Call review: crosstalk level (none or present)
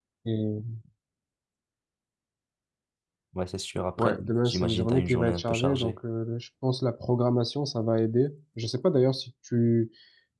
present